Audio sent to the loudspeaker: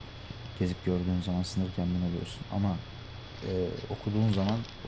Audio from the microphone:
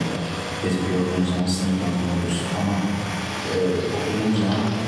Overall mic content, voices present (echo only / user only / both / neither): echo only